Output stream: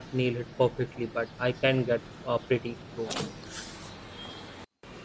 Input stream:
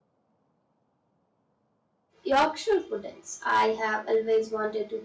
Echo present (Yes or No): No